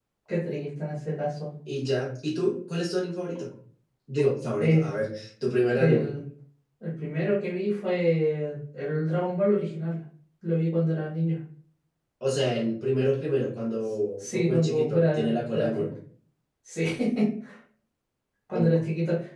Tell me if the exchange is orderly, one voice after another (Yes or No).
No